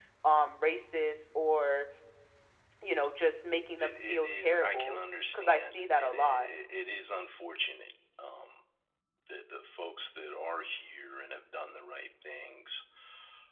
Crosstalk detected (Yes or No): Yes